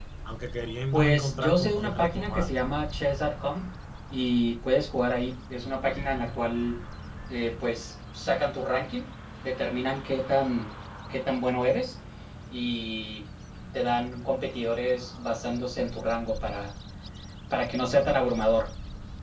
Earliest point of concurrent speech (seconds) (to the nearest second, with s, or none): 1 s